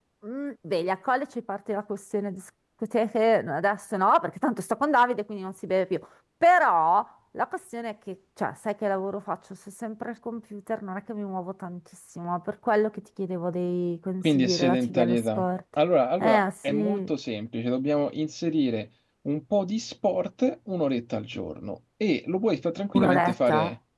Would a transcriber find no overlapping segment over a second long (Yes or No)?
No